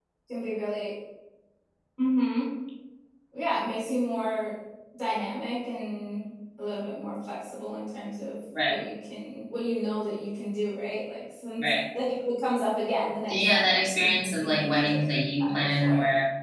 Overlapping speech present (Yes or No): Yes